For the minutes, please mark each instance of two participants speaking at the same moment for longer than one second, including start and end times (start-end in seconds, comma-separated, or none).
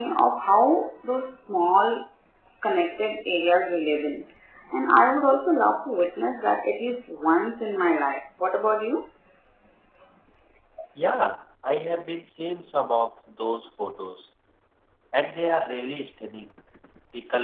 none